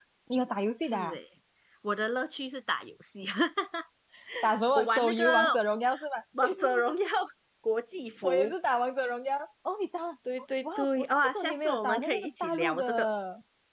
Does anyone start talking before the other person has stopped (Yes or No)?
Yes